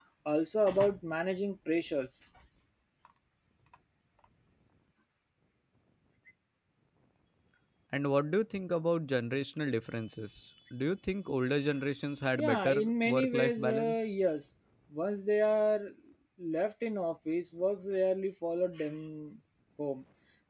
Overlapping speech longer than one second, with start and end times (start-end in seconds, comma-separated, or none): 12.4-14.1